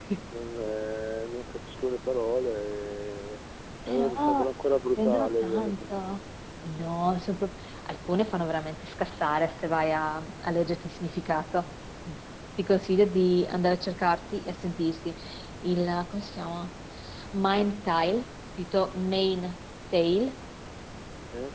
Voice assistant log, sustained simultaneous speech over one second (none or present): present